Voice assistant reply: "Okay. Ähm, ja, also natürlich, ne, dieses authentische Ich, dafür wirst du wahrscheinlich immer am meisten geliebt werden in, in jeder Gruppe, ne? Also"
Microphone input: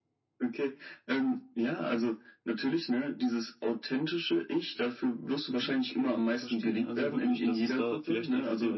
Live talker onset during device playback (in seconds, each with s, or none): 5.5 s